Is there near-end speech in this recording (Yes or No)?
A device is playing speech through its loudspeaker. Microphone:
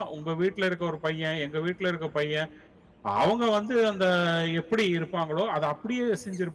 Yes